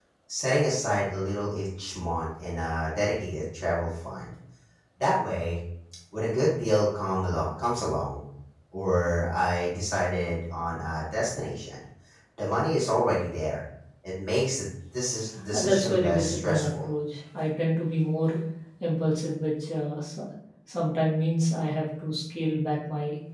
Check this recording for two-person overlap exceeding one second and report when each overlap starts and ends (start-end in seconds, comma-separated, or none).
15.5-16.9